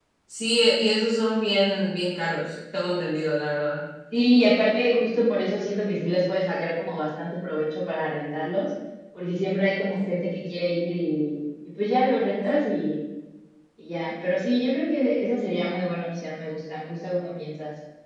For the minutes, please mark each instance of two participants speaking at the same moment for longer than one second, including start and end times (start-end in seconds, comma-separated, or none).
none